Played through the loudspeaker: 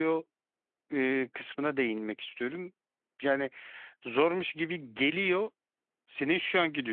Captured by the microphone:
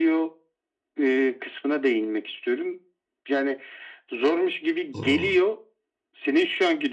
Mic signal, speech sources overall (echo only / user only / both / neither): both